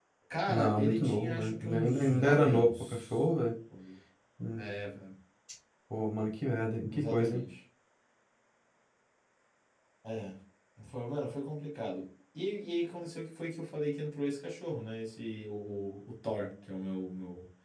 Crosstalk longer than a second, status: present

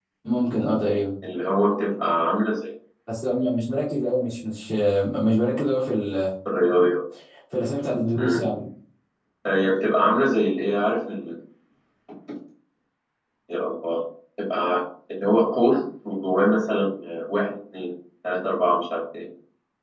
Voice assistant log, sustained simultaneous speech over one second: none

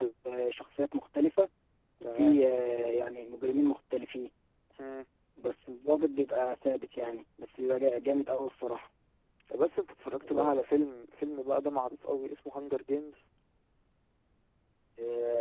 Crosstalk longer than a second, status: none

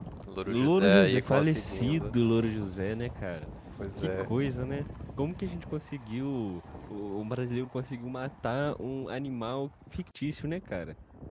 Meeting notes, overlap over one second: present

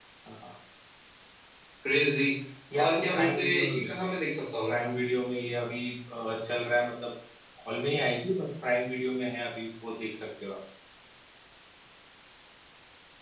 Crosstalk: present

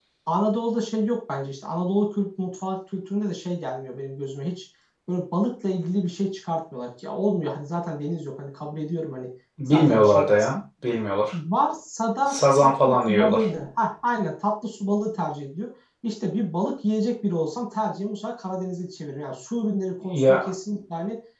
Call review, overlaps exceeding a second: present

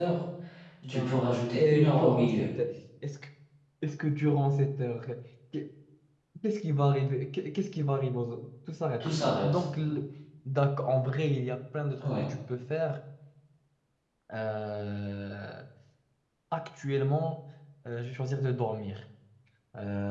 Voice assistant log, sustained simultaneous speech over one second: present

